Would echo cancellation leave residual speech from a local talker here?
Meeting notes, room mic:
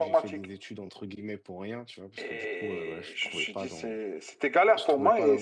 Yes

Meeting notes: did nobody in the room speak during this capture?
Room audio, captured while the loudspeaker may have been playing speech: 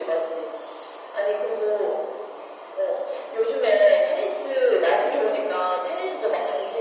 Yes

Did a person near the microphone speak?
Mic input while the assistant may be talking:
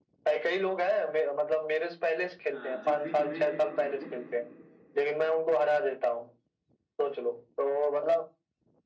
Yes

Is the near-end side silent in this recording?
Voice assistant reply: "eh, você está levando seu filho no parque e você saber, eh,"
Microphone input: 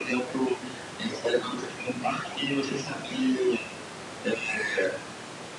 Yes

